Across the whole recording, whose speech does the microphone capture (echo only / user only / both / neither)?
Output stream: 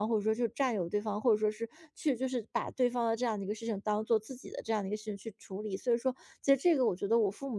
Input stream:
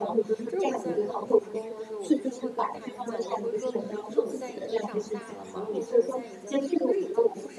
both